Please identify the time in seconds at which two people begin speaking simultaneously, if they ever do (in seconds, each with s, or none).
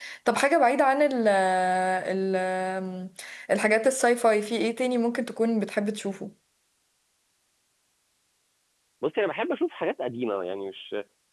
none